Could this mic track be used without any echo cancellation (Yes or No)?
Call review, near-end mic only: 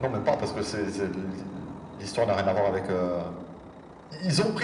No